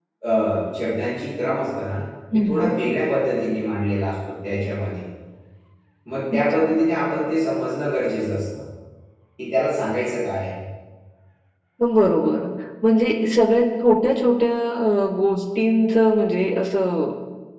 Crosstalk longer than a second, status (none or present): none